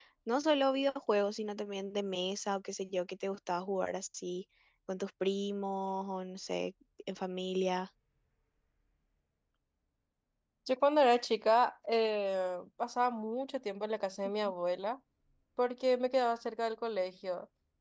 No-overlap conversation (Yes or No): Yes